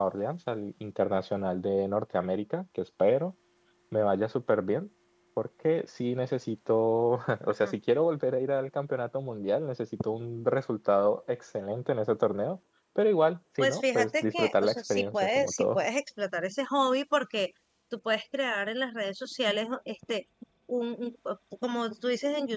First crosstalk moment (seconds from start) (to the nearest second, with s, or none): 14 s